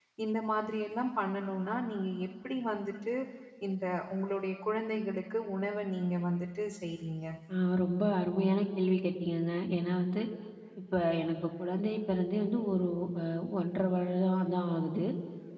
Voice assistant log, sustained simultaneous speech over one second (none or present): none